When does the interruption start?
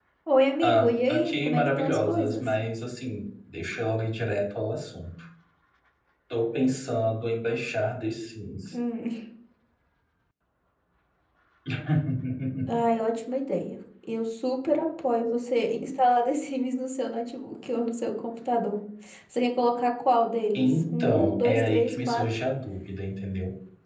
0.6 s

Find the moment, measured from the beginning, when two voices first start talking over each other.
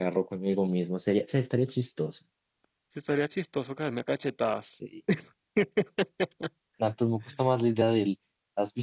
none

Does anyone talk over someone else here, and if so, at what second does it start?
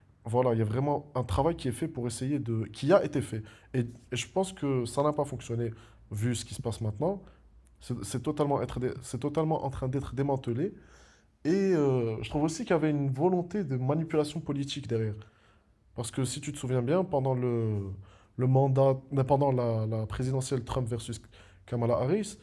none

